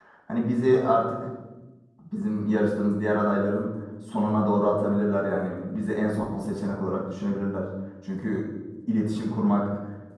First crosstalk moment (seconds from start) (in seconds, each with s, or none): none